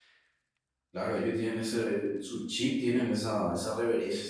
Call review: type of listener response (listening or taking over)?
listening